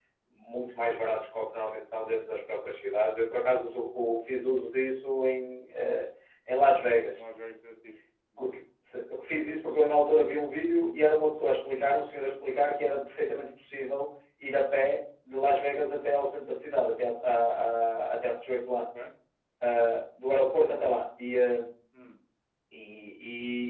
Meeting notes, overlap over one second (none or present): none